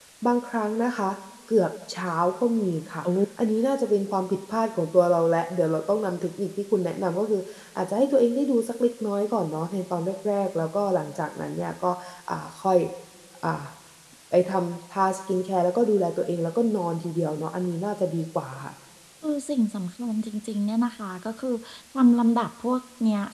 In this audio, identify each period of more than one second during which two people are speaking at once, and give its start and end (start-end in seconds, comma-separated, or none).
none